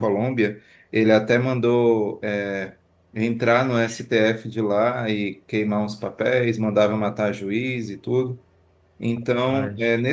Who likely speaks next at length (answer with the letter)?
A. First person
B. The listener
A